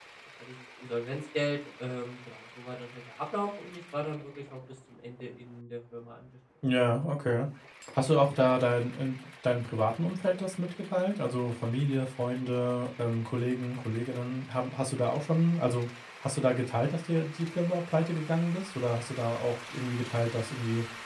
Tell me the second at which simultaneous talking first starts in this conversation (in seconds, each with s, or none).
none